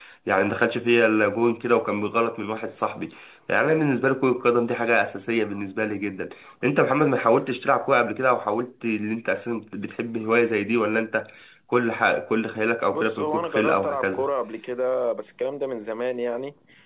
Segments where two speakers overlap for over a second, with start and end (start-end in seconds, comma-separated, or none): 12.9-14.3